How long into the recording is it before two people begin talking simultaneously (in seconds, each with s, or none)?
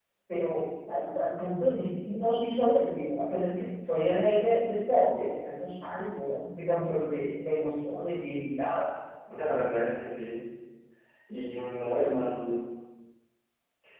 none